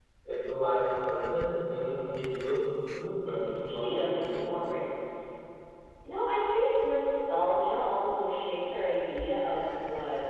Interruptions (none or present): present